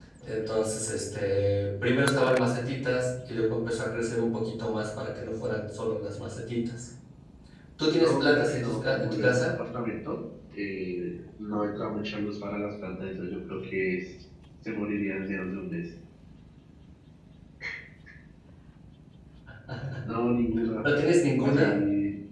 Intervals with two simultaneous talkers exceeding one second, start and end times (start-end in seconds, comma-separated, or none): 8.0-9.6